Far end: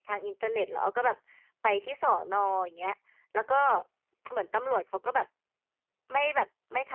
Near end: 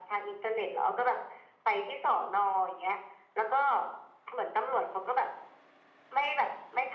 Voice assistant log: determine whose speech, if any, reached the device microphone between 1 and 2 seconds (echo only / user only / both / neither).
echo only